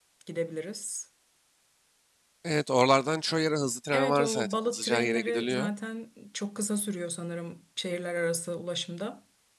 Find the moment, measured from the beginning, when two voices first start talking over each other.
3.9 s

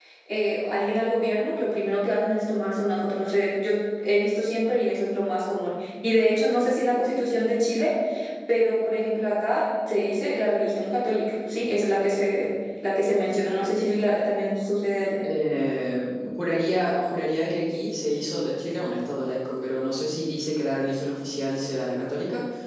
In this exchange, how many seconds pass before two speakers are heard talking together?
none

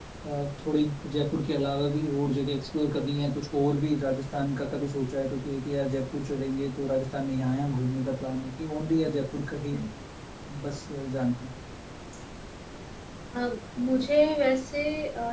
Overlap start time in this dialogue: none

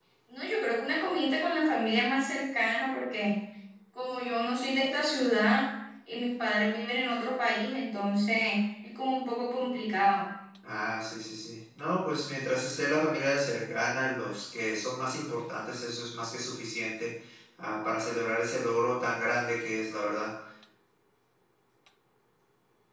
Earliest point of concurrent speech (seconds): none

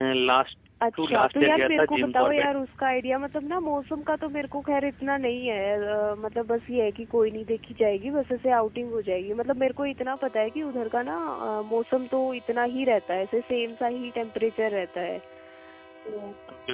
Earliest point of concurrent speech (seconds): 0.9 s

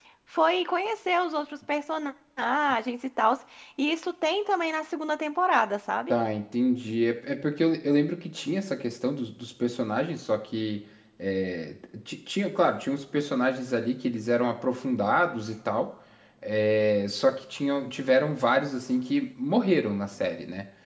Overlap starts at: none

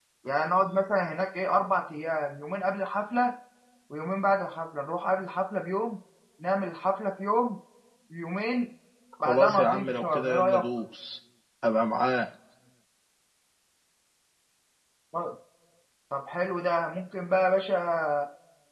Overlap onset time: 9.2 s

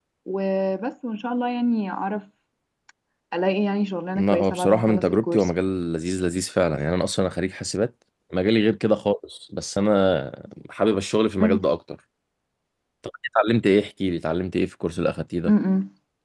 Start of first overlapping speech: 4.2 s

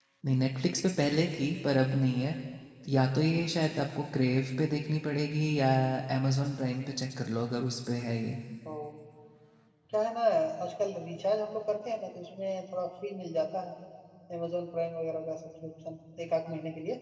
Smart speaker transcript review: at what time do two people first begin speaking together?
none

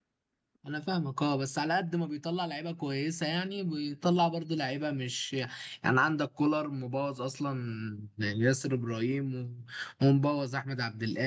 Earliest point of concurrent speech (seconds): none

